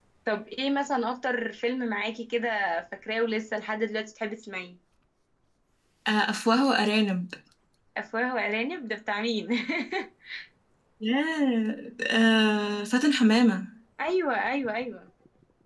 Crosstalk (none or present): none